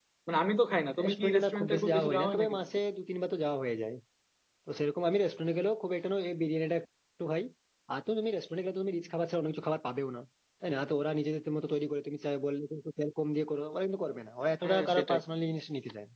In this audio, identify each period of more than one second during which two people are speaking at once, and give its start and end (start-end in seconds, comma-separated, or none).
1.0-2.6